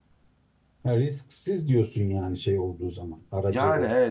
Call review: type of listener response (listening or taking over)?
taking over